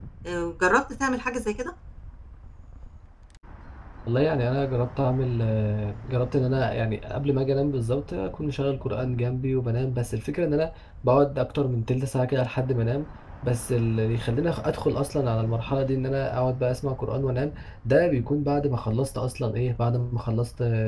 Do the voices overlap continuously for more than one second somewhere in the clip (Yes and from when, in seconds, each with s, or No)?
No